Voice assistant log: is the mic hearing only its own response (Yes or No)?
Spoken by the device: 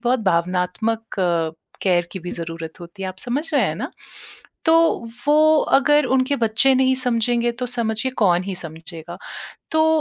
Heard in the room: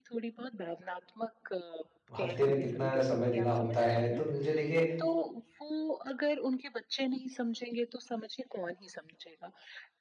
No